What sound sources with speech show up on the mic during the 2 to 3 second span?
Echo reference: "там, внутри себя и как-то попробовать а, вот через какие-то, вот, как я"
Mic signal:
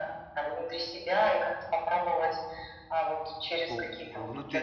echo only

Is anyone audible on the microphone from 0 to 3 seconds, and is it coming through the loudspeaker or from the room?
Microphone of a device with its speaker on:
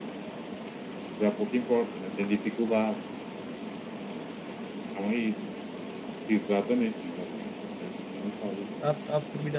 echo only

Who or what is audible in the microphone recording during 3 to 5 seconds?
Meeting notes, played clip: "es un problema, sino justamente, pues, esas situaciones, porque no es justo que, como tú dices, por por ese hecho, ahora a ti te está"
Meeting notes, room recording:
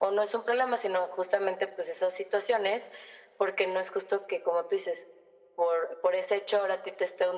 echo only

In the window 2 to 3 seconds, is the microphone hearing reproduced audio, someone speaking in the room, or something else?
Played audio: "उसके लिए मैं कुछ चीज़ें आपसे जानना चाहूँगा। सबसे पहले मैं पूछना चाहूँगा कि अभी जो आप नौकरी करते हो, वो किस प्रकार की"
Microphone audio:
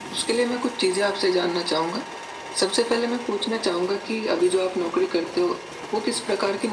echo only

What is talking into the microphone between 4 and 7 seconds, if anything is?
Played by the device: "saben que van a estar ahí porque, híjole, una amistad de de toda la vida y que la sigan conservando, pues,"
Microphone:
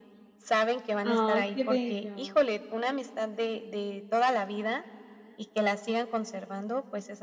echo only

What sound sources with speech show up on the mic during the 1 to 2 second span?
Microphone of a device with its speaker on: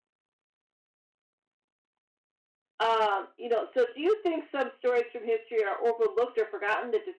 neither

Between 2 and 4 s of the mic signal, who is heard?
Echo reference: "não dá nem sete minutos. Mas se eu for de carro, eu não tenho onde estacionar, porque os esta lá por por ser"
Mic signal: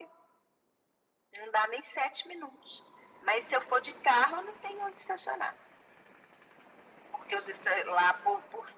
echo only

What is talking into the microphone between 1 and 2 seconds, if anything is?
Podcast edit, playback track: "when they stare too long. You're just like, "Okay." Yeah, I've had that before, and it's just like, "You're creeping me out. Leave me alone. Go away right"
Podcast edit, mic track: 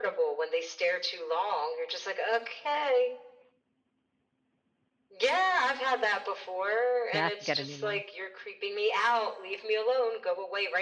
echo only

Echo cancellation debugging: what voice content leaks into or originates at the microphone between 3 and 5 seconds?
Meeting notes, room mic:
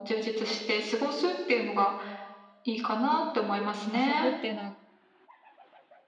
both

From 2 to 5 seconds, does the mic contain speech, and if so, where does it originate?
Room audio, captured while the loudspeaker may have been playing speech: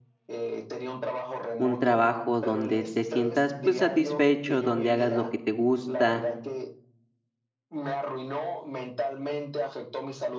both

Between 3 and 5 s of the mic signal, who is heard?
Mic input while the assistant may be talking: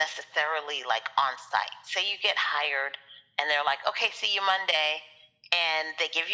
echo only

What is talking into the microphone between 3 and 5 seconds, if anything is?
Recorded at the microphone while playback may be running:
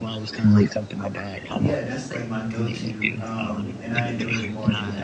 both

